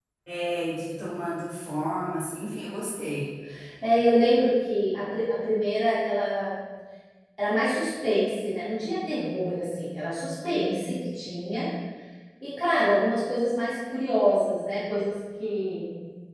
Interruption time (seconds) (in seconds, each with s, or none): none